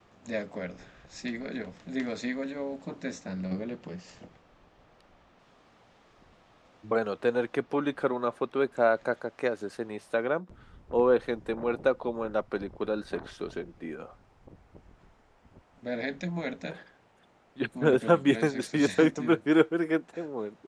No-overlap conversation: No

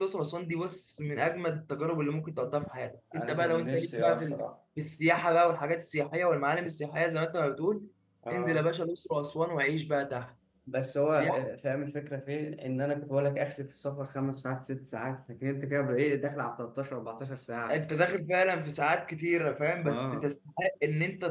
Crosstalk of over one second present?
Yes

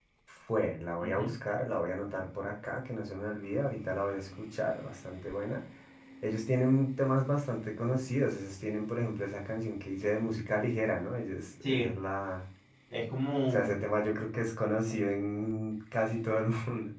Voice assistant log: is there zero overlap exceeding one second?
Yes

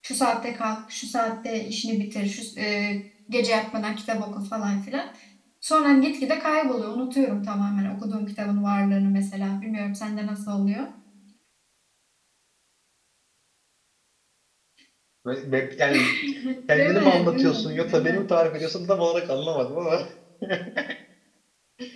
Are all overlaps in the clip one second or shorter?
No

